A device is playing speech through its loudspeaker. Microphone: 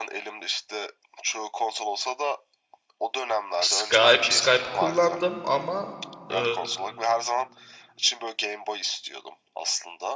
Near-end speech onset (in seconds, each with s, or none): 3.6 s